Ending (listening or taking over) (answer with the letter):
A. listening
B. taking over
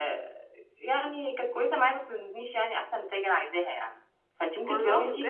A